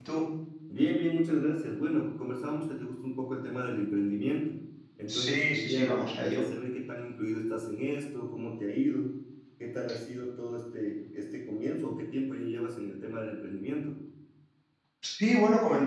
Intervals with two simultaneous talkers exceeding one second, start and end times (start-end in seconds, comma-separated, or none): 5.1-6.4